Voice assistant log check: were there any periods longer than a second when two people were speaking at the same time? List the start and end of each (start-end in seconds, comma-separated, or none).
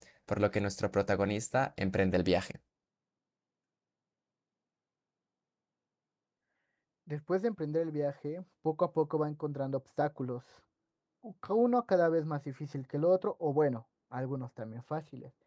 none